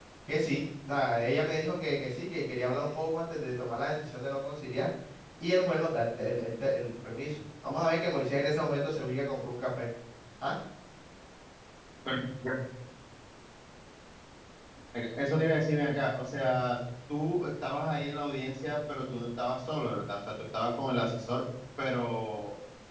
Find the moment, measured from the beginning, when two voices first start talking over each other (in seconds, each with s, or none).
none